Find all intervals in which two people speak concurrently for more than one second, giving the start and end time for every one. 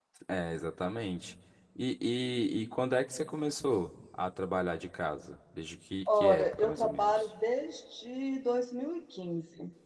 6.1-7.3

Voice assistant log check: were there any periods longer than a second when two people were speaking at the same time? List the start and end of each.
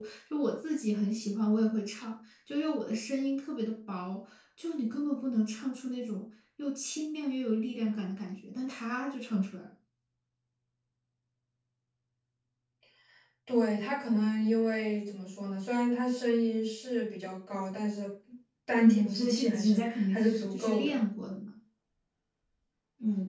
18.8-21.0

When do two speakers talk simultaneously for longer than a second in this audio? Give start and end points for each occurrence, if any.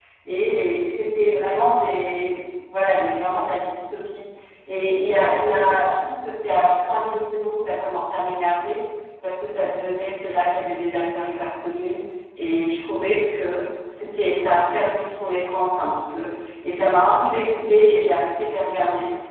none

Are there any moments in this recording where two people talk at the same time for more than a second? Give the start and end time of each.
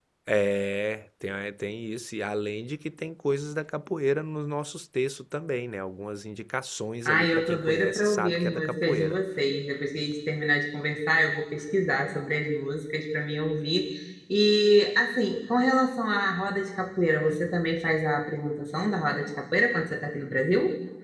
7.0-9.2

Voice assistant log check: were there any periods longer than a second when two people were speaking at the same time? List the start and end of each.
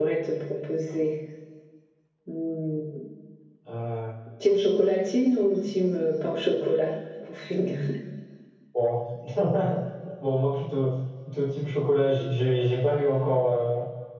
none

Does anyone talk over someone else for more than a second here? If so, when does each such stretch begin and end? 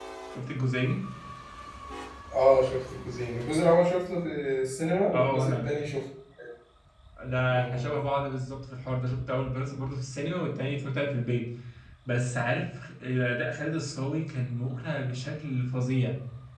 none

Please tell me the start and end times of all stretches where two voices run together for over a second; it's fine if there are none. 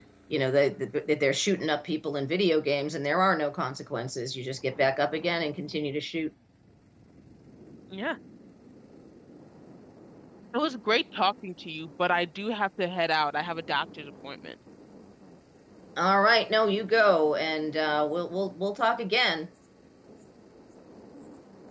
none

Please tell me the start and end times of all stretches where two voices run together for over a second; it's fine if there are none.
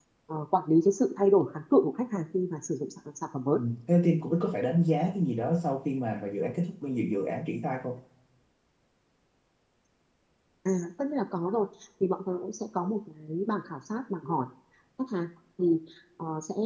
none

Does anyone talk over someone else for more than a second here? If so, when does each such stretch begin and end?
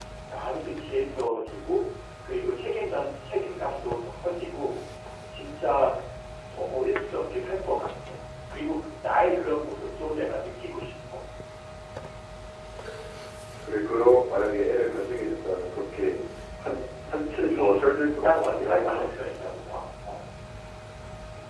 17.5-19.1

